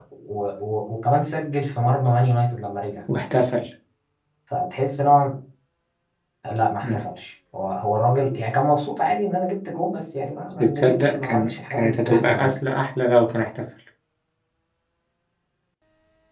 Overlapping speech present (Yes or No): Yes